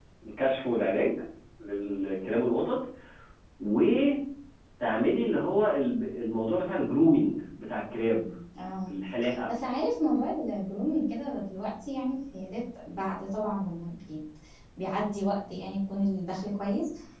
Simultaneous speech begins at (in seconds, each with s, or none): none